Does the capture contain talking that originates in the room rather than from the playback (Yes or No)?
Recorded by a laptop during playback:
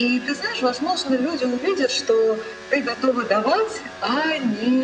No